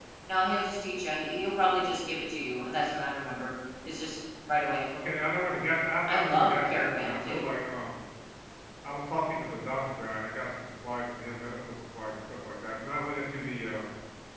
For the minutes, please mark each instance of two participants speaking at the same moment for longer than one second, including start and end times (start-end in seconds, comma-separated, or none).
6.1-7.4